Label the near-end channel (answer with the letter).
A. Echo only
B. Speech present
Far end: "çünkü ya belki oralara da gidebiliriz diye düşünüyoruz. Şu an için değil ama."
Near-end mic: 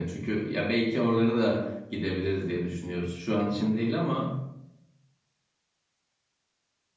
A